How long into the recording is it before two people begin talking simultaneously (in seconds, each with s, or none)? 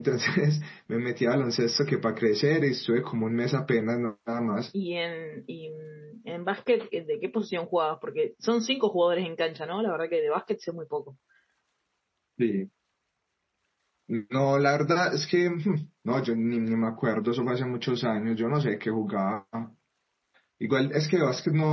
none